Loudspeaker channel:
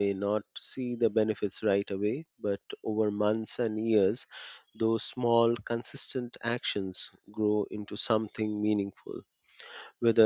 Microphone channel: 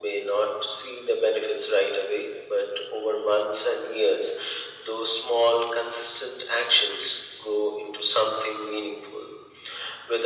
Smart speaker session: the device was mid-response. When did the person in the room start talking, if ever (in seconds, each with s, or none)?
none